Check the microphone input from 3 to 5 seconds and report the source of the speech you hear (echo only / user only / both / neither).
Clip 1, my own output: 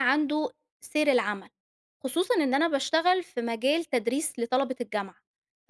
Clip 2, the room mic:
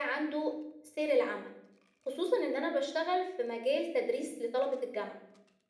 echo only